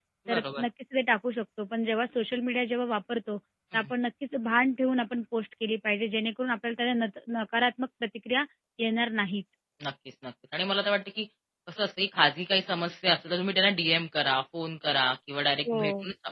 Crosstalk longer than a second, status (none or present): none